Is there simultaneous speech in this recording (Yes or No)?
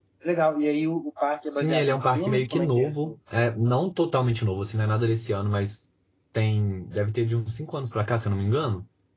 Yes